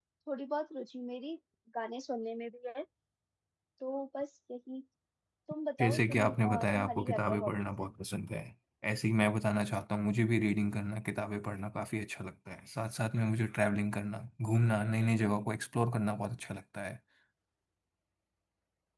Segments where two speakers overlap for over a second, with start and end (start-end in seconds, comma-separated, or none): 5.8-7.9